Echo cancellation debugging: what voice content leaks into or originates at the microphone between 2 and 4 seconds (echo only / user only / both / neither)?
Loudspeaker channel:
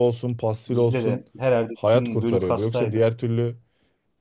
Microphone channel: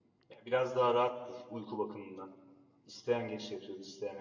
user only